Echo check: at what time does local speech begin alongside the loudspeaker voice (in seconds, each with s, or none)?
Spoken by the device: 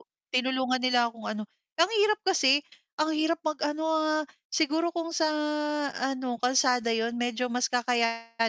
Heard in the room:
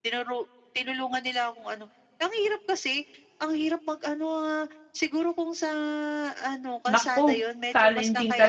6.9 s